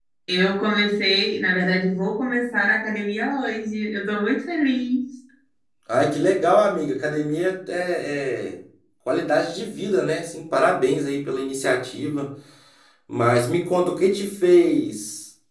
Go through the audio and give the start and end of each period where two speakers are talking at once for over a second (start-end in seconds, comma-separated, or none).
none